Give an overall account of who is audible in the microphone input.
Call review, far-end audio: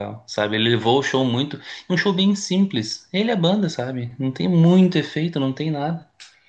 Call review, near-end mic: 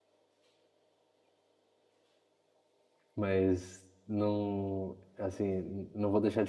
user only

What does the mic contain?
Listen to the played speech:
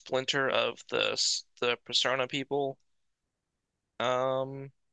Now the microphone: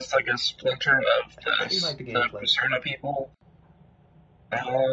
both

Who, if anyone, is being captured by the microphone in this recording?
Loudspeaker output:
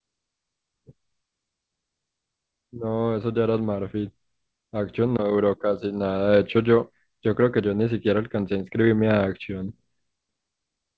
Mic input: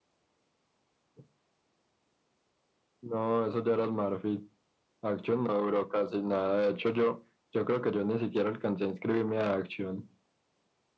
echo only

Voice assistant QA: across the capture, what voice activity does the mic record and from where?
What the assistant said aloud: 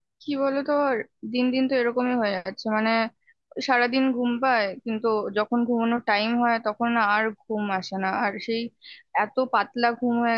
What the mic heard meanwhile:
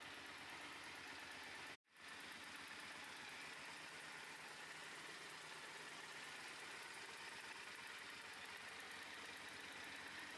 neither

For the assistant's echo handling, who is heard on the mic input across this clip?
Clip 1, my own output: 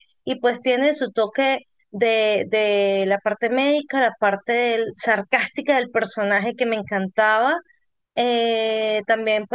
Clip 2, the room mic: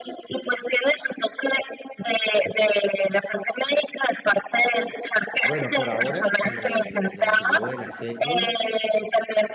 both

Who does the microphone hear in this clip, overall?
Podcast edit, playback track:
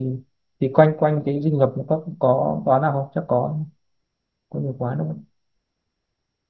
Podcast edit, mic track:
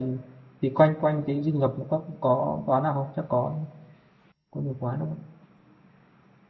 echo only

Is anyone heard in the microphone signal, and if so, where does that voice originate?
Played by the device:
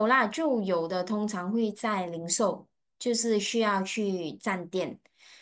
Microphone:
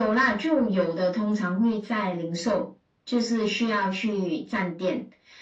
echo only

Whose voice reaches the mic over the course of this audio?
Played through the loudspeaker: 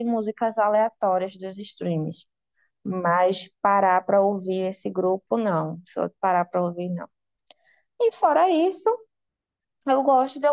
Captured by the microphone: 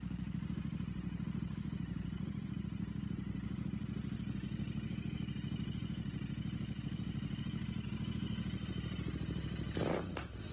neither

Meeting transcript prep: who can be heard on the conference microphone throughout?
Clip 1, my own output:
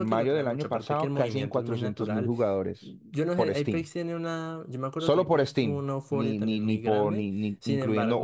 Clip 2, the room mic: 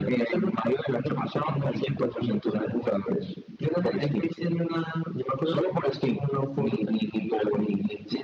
echo only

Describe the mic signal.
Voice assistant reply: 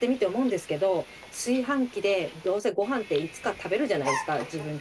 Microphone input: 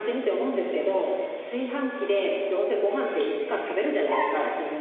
echo only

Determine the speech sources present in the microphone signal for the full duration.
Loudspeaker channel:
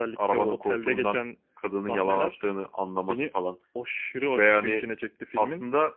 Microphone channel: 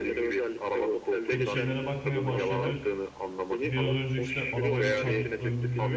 both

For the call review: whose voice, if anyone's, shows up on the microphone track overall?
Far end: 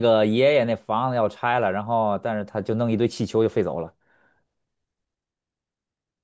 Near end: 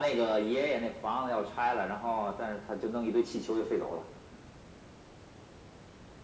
echo only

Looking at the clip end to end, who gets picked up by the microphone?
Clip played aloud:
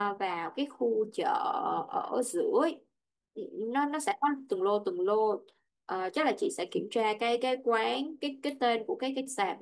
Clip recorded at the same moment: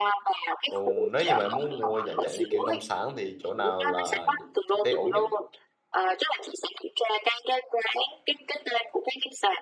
both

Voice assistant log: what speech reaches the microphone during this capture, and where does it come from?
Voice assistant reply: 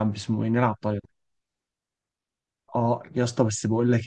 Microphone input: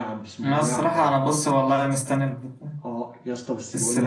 both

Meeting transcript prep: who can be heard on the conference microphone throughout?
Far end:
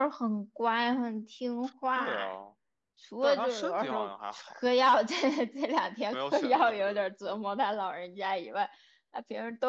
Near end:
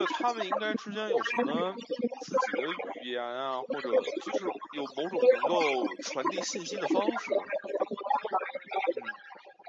both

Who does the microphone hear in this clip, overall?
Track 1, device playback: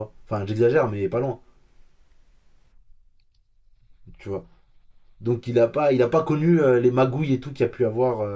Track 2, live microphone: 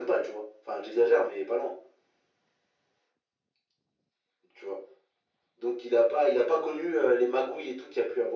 echo only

